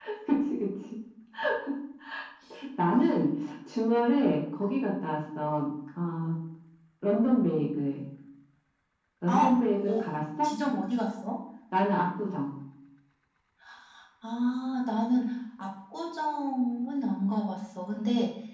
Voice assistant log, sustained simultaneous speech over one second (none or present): none